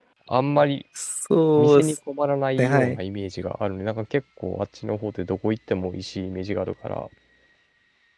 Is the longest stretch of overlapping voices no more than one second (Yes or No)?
Yes